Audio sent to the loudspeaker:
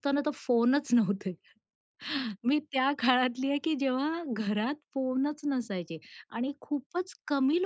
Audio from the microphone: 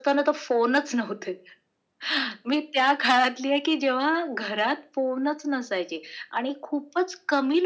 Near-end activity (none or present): none